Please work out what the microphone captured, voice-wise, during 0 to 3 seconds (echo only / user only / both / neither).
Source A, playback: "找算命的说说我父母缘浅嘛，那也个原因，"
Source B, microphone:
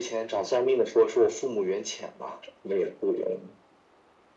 echo only